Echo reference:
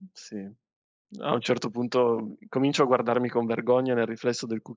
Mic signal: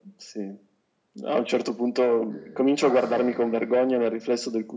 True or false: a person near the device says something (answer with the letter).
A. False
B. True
B